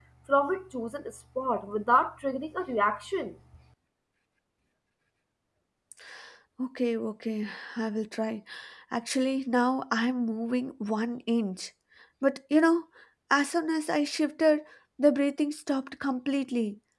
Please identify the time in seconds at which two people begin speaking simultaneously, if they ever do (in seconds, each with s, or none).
none